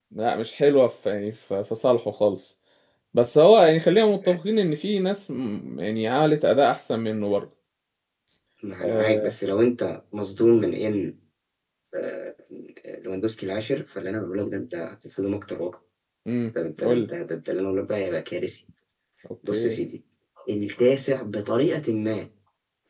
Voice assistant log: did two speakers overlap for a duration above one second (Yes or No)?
No